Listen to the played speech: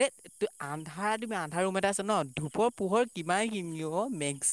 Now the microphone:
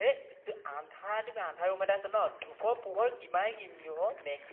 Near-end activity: none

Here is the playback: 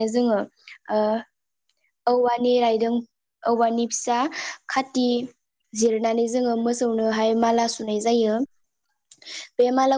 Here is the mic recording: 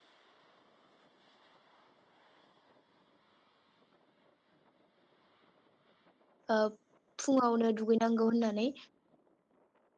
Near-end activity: present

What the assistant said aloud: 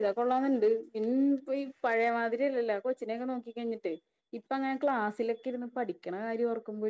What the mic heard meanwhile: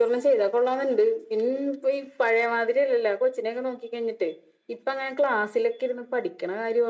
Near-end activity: none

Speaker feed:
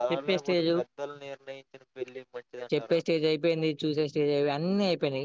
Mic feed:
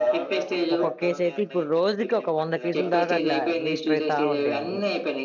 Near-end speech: present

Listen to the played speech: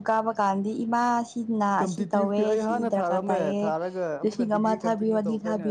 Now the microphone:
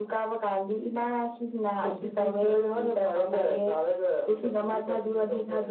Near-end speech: none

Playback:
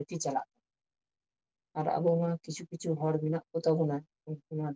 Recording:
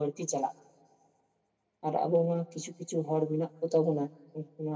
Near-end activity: none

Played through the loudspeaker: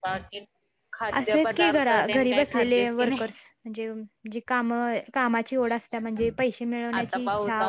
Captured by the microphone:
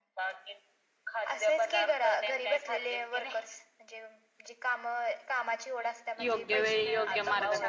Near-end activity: present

